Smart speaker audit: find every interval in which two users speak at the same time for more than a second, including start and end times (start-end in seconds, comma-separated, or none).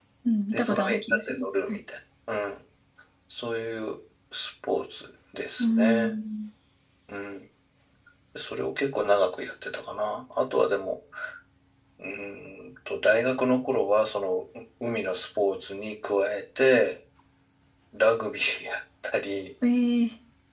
0.5-1.8